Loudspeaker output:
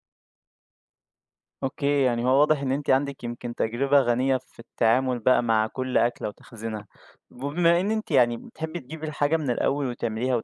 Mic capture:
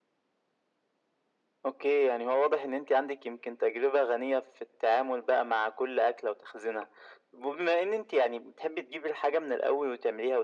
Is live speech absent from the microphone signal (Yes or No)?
Yes